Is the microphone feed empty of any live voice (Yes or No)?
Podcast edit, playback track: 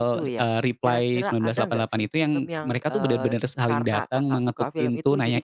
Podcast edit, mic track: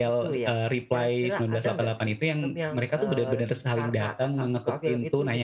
Yes